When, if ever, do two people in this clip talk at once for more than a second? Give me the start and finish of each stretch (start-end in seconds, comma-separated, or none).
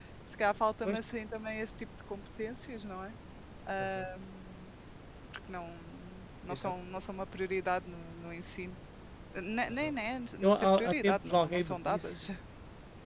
10.4-12.3